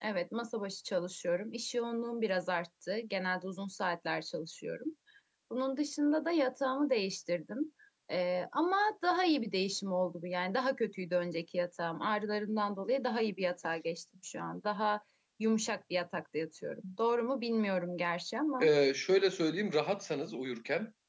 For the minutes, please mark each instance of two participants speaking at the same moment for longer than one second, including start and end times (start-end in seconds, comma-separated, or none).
none